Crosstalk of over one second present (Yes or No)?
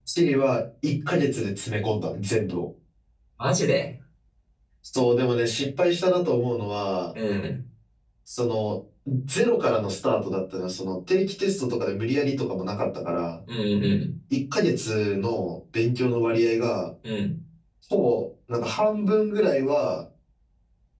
No